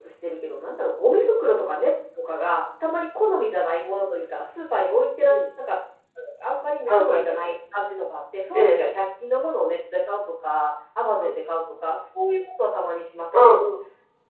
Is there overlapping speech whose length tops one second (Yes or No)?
No